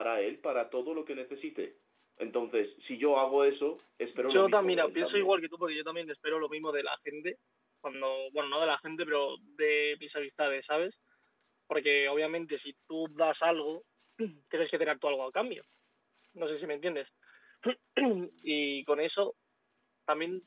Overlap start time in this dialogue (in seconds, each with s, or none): 4.1 s